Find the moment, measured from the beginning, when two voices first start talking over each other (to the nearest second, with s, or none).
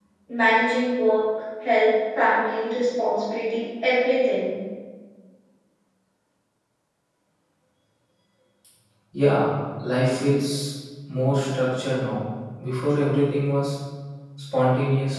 none